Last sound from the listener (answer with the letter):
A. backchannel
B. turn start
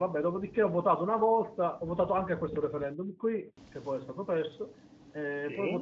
A